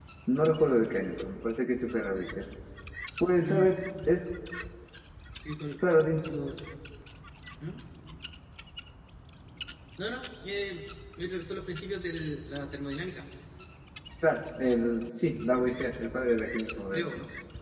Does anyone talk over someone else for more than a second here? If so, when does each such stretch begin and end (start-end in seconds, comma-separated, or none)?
none